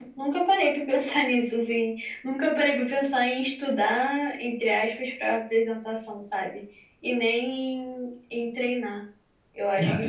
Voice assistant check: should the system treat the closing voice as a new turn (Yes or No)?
Yes